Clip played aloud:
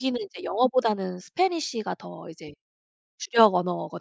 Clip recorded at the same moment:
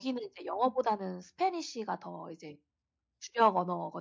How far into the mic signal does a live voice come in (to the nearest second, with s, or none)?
none